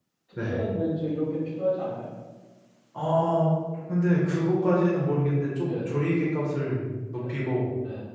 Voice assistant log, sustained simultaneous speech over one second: none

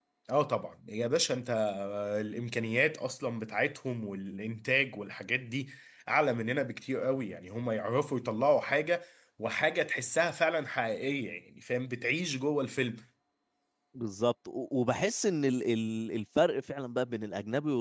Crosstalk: none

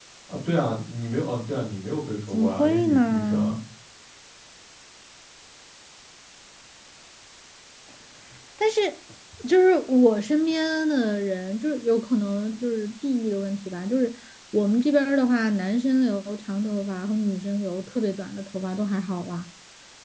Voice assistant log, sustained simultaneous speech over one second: present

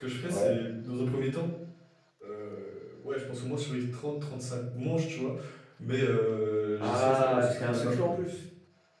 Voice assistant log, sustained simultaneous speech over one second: present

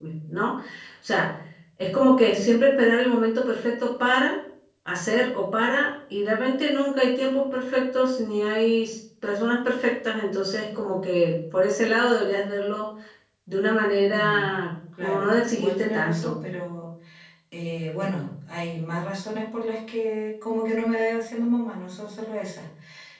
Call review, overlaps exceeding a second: present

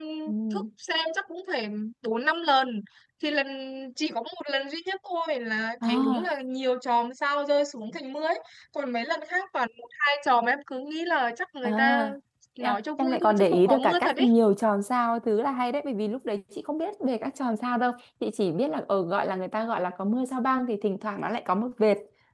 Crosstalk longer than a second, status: present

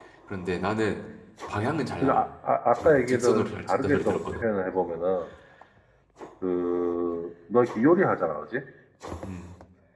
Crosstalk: present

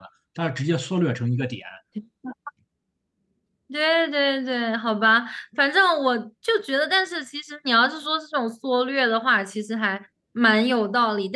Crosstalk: none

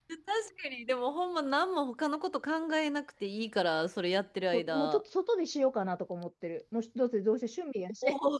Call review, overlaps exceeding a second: none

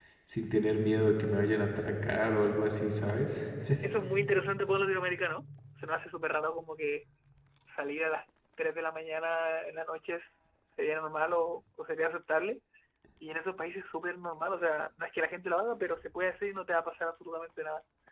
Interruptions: none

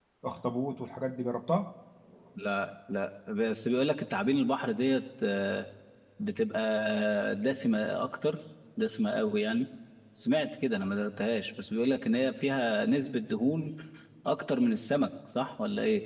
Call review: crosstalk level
none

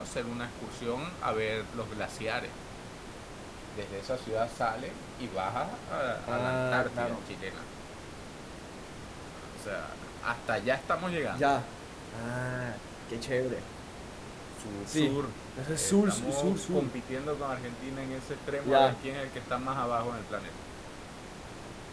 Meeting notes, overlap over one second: present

